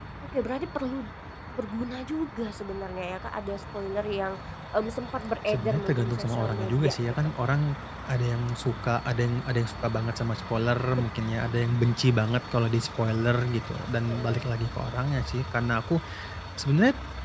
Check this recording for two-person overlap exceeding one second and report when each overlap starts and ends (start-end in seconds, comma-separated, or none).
5.5-7.1